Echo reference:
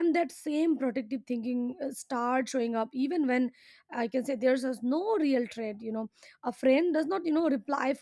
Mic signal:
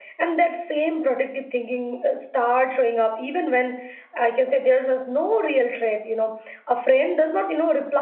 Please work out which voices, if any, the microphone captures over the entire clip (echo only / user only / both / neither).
echo only